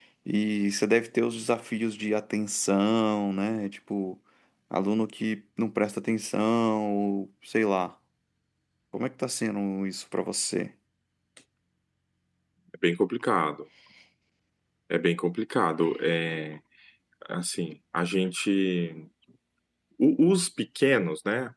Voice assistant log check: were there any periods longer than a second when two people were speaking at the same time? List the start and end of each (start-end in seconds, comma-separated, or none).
none